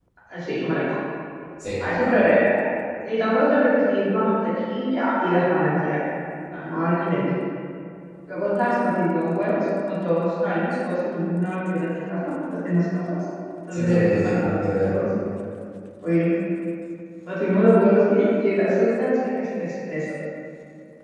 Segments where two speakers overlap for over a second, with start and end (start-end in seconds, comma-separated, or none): 13.7-14.9